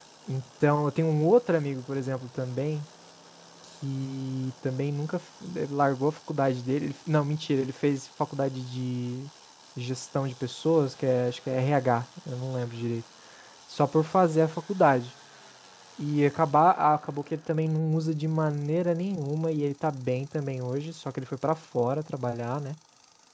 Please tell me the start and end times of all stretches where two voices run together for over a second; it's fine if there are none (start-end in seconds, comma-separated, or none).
none